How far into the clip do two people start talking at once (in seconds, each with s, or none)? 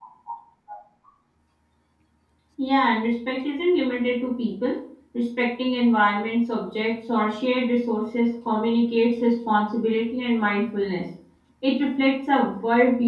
none